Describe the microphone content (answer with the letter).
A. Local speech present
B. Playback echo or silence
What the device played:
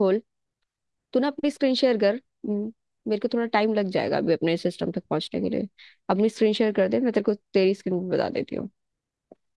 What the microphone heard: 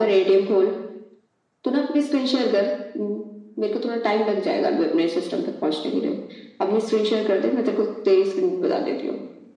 B